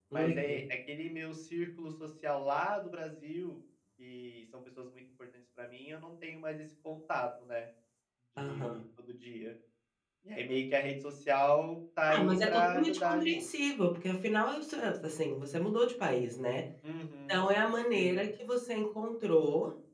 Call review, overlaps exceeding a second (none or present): present